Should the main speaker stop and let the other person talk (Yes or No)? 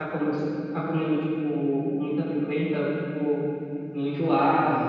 Yes